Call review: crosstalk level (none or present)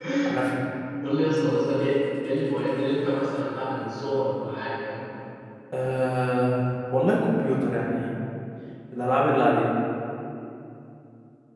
none